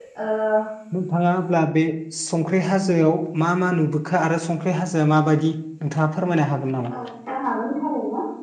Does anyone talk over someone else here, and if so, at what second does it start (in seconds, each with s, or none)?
none